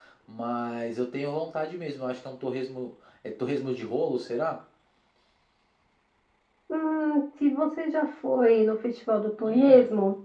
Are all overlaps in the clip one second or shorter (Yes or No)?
Yes